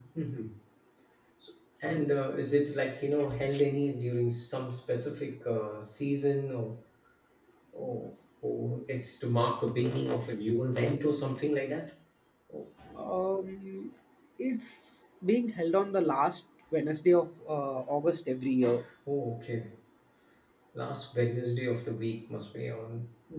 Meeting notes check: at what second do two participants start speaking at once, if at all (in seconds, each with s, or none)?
none